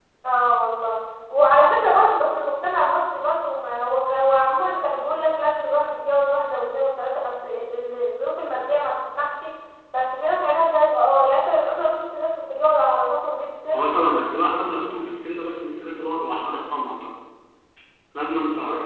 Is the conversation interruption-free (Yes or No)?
Yes